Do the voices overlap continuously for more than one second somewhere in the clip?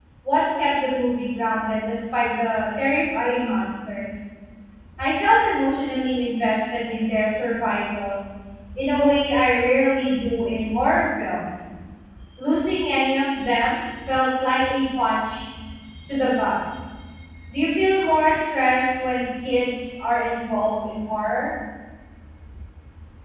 No

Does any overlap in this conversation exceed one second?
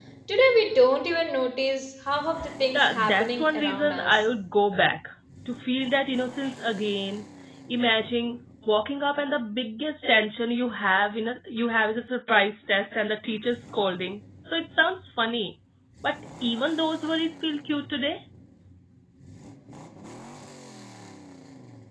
Yes, from 2.7 s

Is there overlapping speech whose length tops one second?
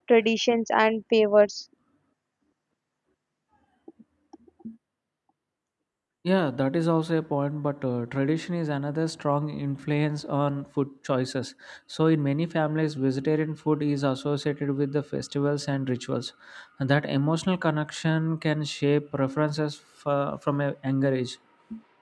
No

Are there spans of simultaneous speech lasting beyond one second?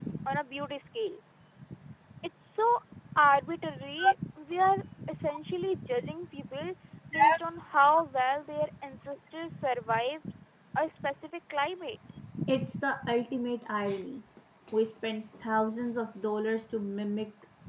No

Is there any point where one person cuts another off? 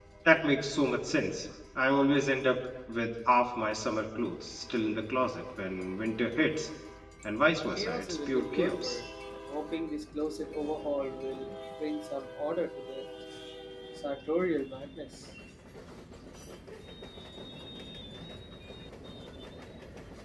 Yes, from 7.8 s

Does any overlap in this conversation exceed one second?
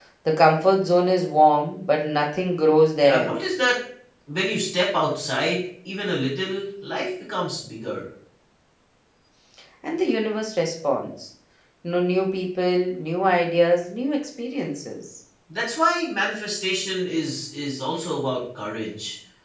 No

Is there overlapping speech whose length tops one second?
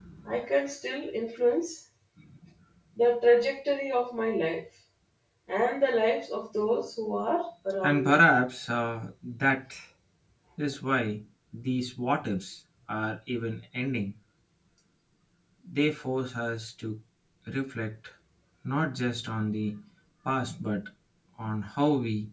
No

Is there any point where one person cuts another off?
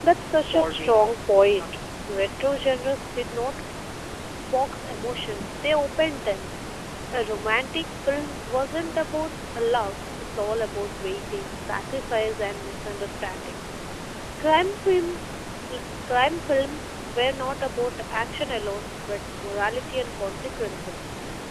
Yes, from 0.5 s

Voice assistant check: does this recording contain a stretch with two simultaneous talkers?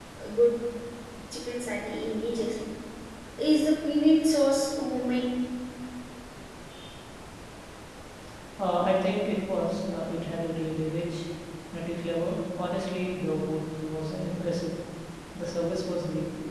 No

